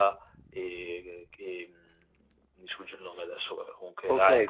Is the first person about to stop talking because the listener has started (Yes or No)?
Yes